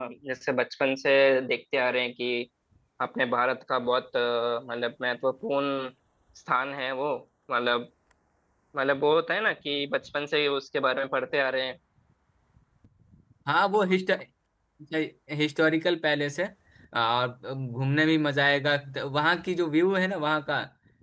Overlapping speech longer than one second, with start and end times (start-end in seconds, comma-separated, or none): none